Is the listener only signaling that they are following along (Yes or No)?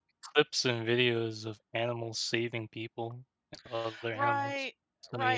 No